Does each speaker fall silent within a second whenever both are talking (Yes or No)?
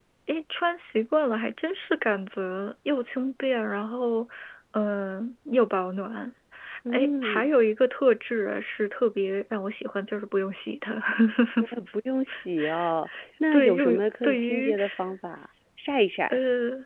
No